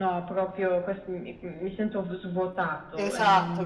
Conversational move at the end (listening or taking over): taking over